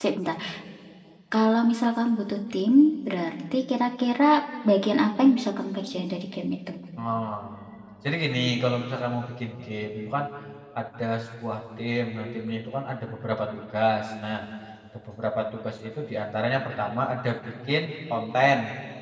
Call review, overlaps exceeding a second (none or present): none